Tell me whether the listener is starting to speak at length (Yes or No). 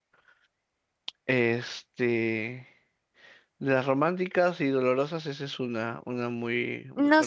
Yes